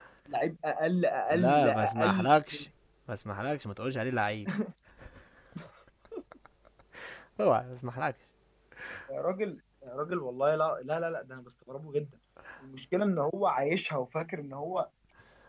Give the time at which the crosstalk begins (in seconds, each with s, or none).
1.3 s